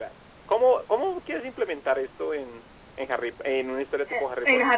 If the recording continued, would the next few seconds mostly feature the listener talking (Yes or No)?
Yes